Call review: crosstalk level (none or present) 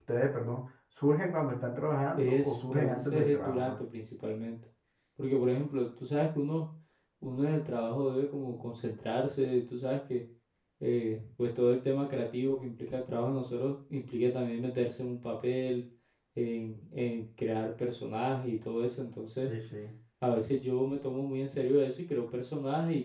present